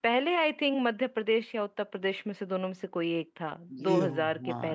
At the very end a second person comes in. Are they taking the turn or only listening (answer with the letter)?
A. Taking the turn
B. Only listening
A